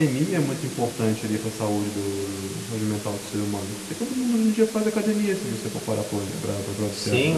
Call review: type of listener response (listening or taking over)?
taking over